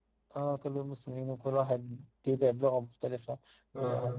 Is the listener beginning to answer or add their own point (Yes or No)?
No